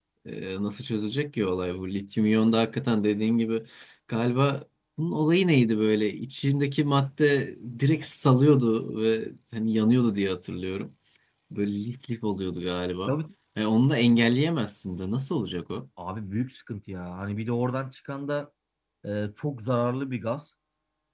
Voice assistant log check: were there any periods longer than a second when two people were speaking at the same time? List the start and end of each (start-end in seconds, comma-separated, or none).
none